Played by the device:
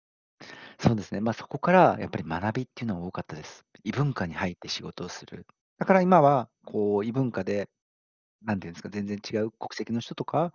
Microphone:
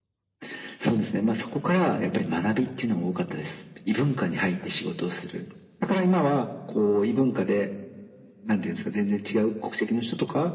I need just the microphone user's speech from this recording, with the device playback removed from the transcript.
none

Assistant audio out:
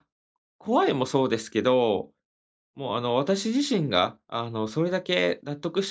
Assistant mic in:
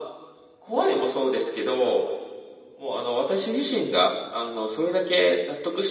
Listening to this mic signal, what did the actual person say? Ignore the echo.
none

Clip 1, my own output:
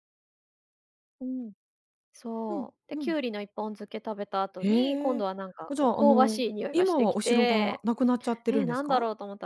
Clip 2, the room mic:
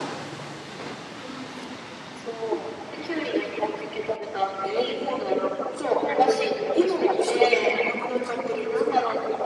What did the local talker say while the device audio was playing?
none

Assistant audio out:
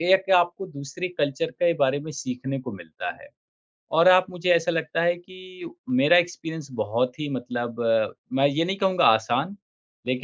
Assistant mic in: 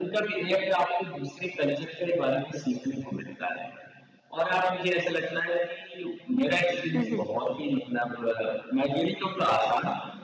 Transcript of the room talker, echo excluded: हुँ, हुँ।

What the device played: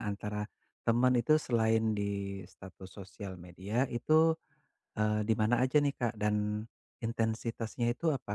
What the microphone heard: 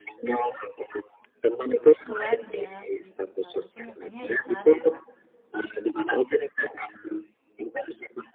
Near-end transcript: keluarga gitu, Kak. Mungkin Kakaknya ada saran, Kak?

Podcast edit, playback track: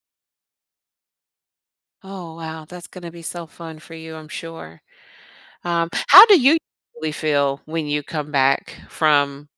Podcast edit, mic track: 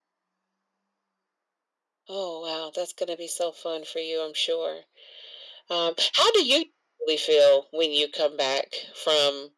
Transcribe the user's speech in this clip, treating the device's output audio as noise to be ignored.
none

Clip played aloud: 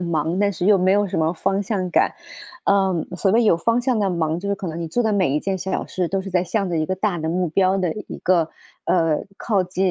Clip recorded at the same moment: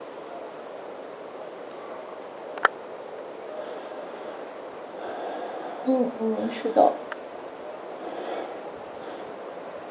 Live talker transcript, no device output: 嗯嗯，是的，

